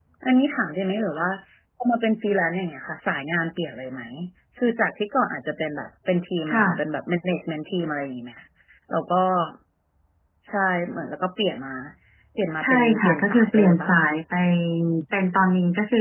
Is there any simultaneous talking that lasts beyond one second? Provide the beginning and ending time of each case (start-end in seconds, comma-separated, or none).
12.6-14.0